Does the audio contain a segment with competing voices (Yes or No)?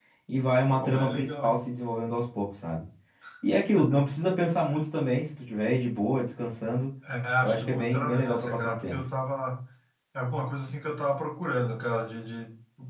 Yes